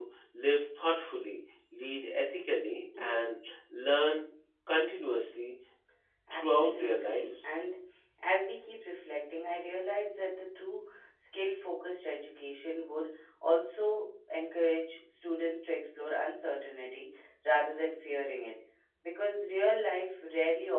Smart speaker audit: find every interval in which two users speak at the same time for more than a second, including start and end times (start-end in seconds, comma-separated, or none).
6.3-7.6